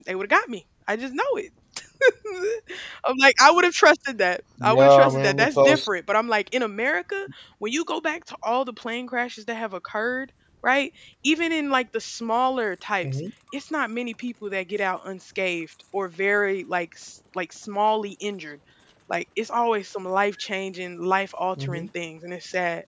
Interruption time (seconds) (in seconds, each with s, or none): 4.6 s